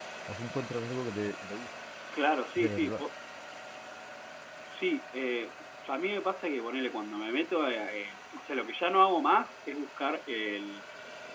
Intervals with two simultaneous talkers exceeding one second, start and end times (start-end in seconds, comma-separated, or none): none